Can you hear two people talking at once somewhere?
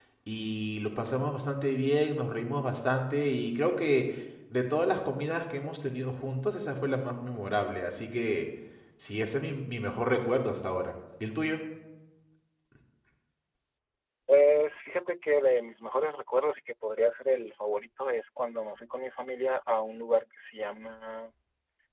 No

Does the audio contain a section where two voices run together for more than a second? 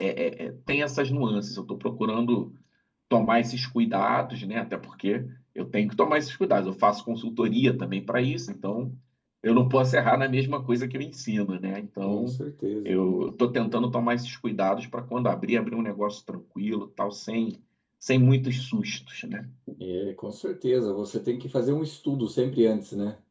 No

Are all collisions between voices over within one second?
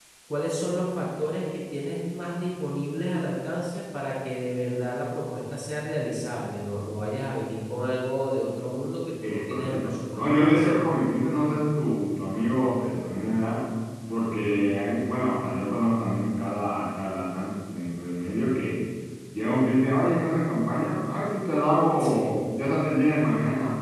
No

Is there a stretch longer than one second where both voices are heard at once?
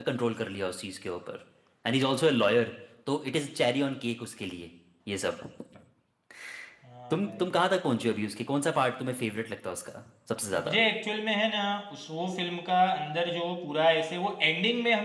No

